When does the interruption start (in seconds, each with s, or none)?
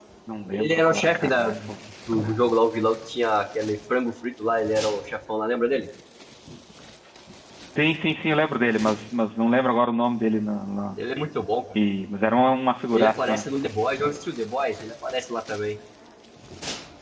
0.5 s